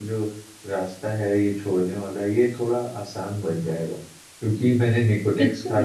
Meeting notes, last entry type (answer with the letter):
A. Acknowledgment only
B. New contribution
A